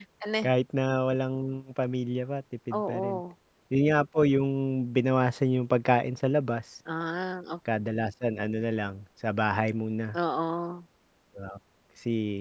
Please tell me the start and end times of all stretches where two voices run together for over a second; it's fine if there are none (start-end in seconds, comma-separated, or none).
none